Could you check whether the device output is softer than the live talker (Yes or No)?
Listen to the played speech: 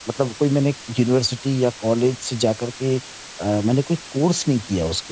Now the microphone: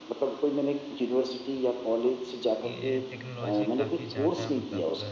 No